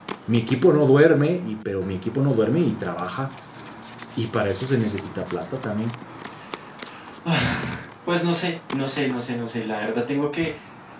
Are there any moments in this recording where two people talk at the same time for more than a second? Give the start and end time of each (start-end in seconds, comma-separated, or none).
none